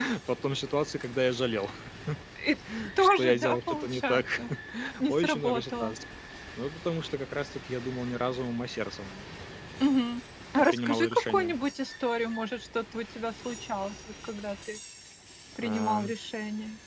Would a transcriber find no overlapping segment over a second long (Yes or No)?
No